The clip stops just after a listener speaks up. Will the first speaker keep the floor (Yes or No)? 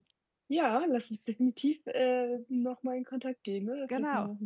No